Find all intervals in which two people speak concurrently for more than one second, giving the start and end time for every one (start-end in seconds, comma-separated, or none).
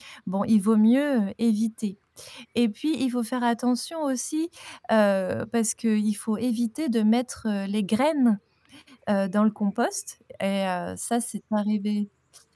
none